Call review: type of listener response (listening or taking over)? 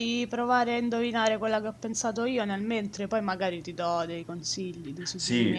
taking over